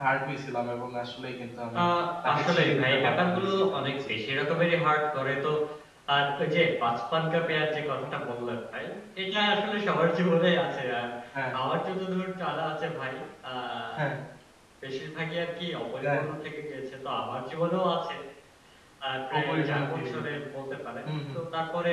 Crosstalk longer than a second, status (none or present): present